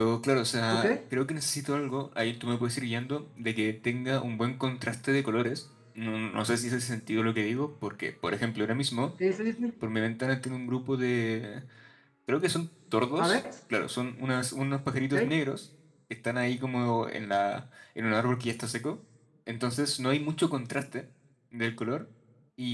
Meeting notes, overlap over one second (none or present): none